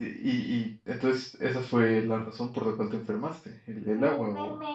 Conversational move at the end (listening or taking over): taking over